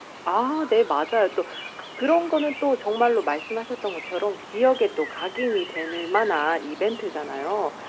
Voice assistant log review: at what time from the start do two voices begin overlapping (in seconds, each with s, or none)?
none